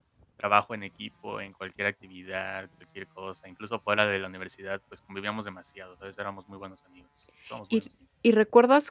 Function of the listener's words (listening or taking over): taking over